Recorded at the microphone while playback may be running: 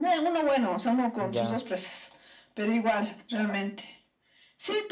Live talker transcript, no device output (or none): ya.